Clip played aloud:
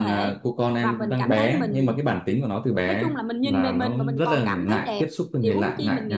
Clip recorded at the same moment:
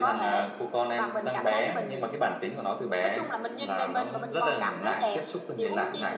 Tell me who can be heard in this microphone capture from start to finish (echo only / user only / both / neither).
echo only